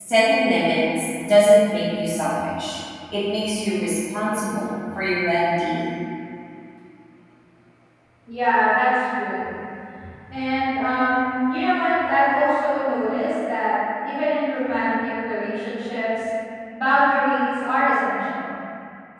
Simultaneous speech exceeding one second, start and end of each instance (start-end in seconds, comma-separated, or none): none